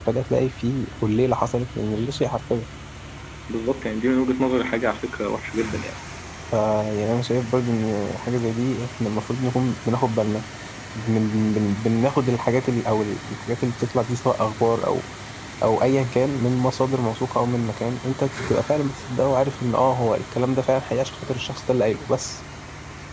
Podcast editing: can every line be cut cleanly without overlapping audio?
Yes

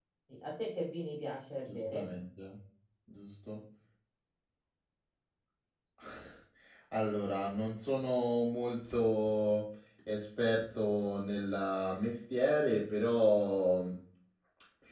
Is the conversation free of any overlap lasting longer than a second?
Yes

